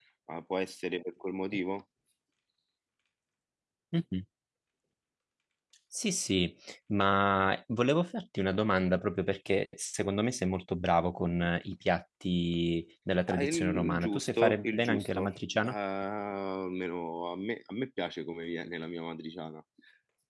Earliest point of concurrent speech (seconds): 13.3 s

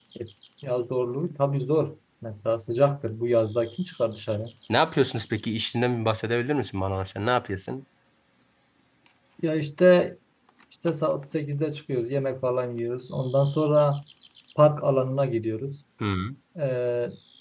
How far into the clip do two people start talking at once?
none

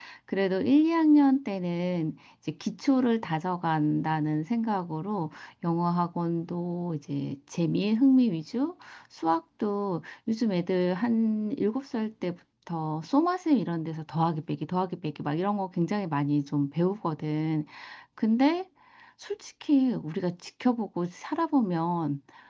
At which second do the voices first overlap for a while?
none

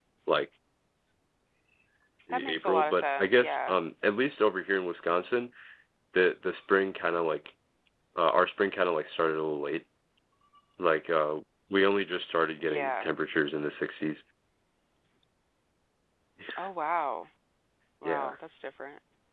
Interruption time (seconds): 2.3 s

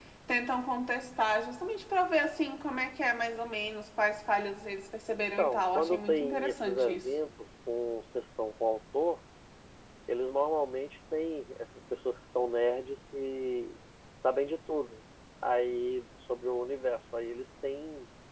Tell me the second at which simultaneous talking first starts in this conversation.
5.4 s

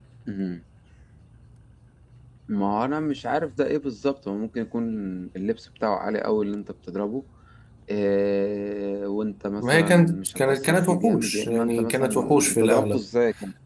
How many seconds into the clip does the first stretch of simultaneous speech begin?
9.6 s

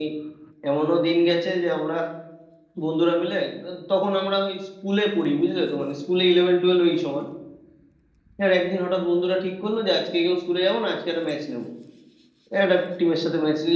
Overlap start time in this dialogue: none

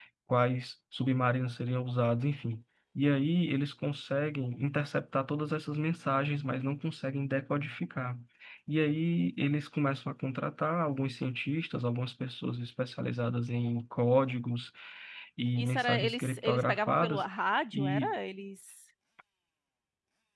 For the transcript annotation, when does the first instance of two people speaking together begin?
15.6 s

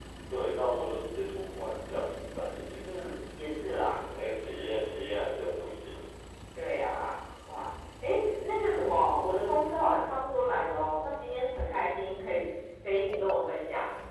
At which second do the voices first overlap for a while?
none

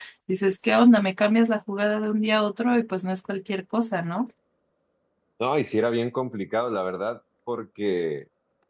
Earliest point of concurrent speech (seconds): none

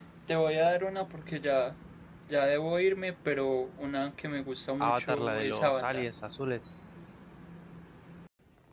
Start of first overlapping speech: 4.8 s

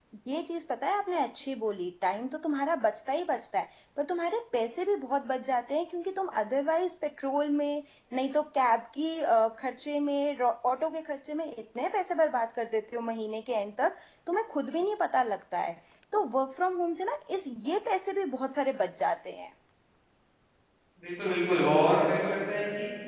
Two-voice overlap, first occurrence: none

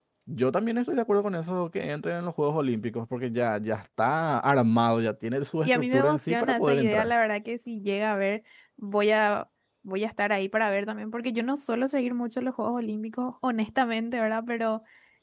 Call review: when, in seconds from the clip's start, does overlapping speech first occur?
5.6 s

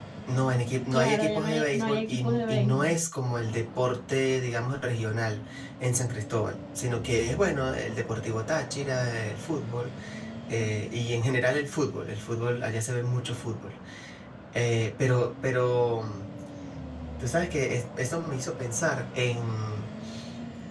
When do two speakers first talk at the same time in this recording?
0.9 s

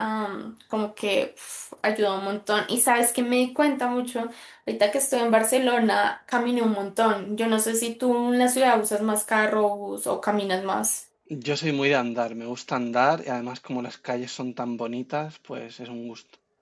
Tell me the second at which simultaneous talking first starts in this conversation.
none

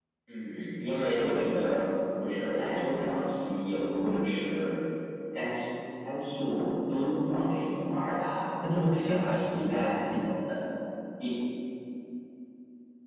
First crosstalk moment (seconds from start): 8.6 s

